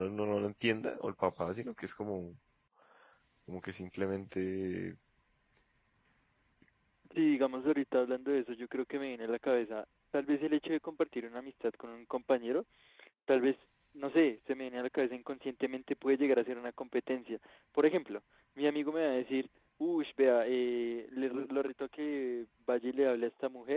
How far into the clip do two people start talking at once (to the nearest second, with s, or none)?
none